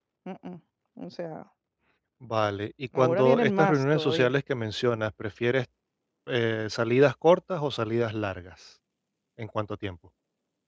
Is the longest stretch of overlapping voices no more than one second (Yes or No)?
No